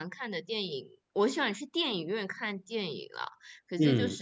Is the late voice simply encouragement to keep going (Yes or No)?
Yes